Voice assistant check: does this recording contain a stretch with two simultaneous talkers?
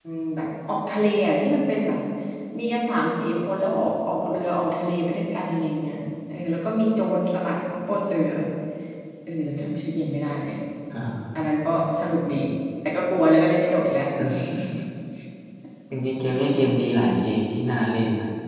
No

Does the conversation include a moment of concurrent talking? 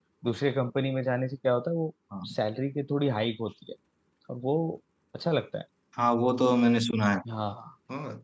No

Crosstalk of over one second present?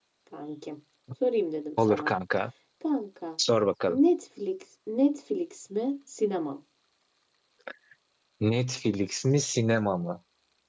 No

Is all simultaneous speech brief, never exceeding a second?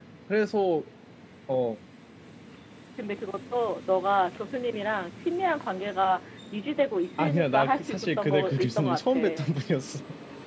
No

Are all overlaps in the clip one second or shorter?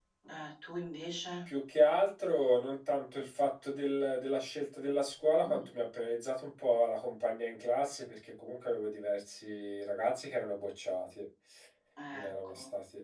Yes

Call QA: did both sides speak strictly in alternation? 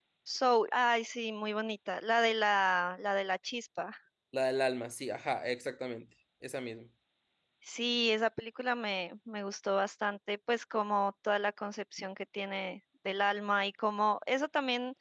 Yes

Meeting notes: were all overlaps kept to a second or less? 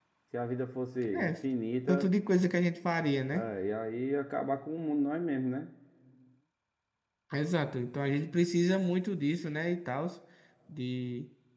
Yes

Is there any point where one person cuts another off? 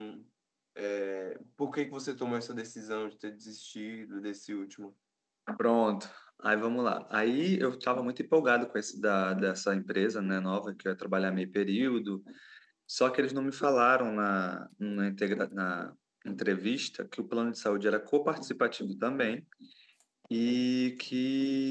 No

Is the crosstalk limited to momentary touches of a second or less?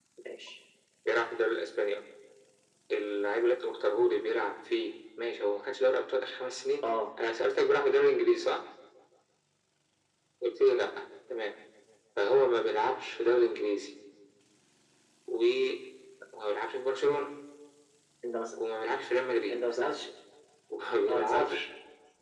Yes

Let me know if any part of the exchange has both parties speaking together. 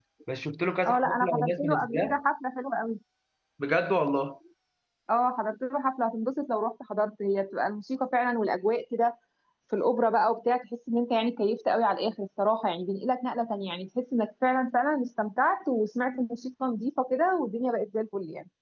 Yes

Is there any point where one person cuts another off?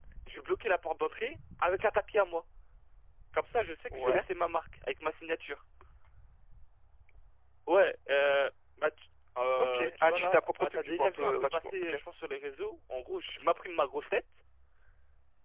Yes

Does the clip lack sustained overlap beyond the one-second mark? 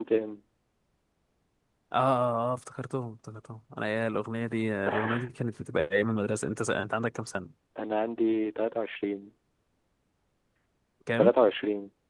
Yes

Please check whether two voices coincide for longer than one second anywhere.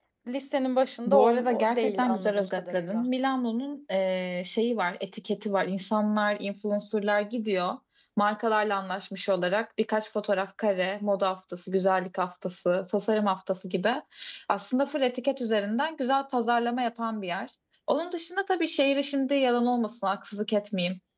Yes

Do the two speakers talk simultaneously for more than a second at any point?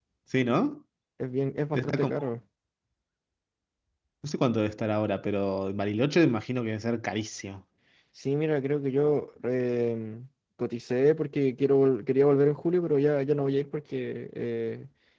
No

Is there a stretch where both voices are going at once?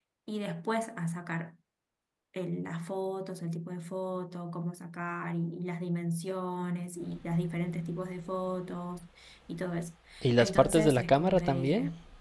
Yes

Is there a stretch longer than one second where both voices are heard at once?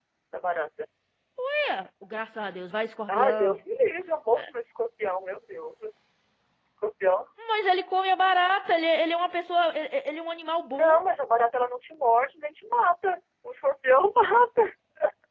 No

